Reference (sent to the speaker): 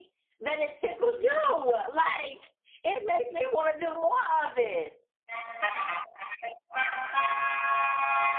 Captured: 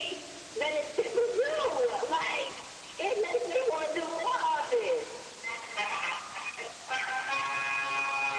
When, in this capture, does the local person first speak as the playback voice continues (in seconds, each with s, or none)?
none